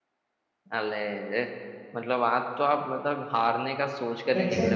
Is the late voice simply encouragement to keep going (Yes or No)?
Yes